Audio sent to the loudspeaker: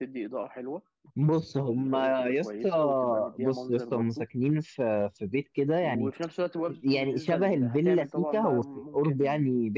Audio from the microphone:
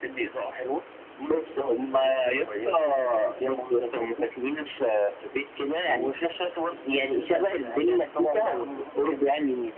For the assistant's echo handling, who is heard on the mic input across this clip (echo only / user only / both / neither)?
echo only